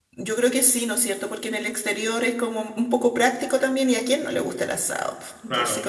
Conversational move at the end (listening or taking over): taking over